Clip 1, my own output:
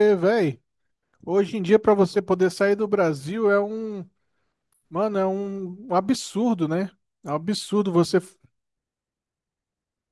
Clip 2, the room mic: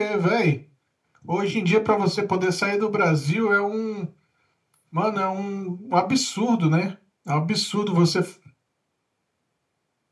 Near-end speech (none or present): none